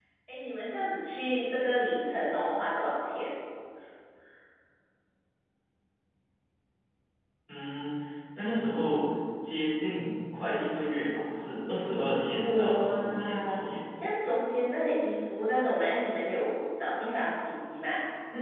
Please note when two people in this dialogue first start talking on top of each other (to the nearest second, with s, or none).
12 s